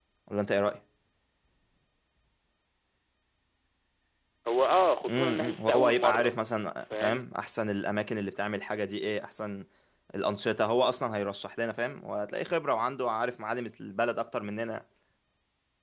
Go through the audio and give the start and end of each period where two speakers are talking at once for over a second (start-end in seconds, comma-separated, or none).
5.1-6.3